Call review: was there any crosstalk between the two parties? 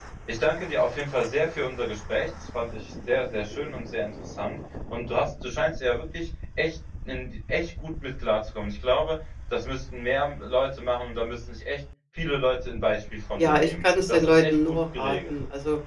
Yes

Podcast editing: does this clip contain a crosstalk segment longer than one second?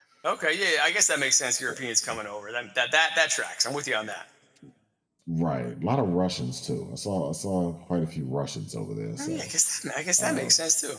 No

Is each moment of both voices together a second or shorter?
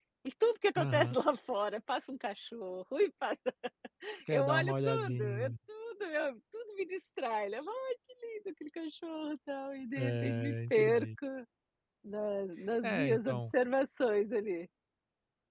No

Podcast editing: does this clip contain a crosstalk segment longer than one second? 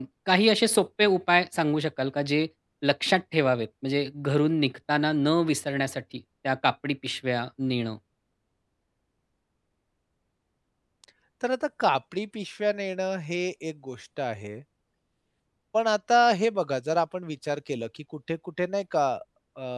No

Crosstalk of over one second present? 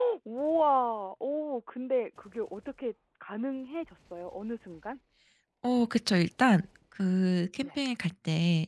No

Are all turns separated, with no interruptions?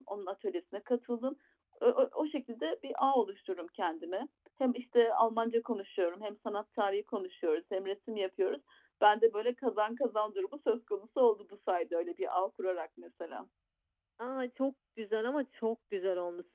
Yes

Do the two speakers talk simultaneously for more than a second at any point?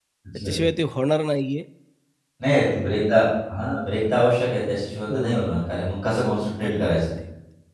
No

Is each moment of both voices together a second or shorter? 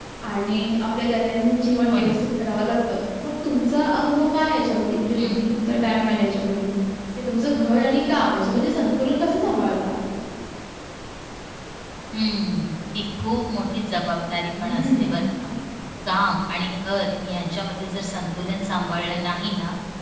Yes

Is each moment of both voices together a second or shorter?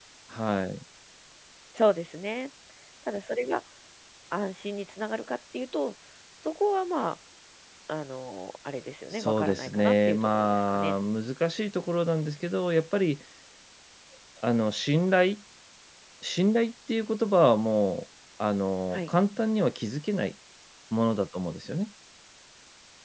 No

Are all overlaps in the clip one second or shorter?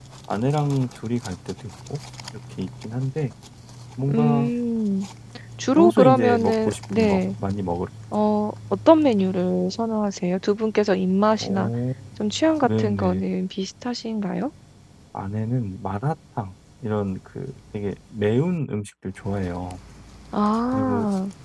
No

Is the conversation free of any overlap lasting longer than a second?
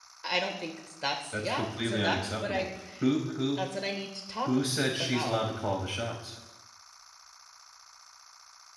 No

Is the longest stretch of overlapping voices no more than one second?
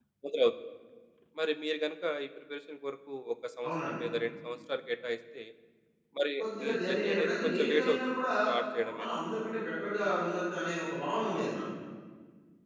No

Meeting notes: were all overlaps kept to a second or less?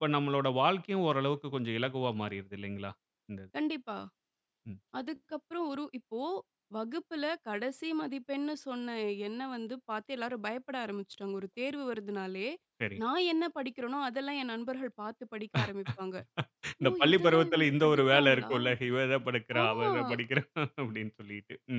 No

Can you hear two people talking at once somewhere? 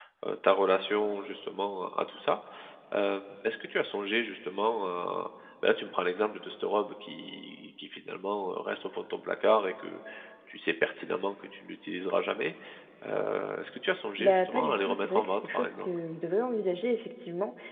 Yes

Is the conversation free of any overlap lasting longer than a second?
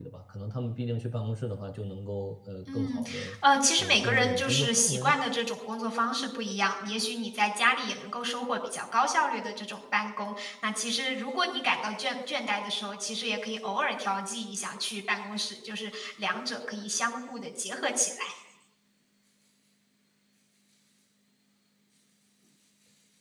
No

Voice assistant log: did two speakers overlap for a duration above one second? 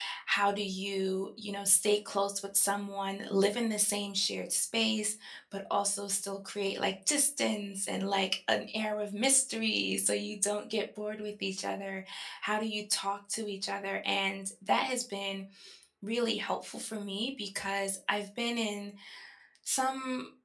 No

